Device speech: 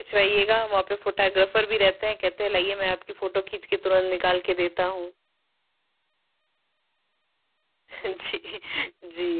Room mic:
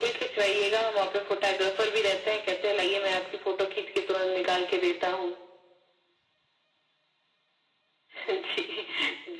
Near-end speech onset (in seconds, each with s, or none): none